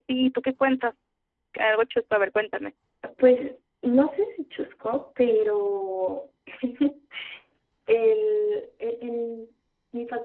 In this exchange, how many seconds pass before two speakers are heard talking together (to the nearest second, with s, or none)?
none